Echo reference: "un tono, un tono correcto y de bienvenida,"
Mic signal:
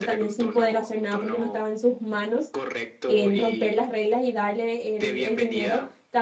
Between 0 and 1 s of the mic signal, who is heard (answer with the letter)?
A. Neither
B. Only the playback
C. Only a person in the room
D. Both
D